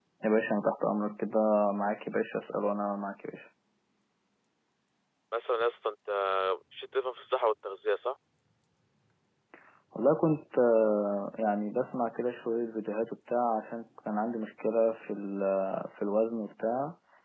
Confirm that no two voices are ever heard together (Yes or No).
Yes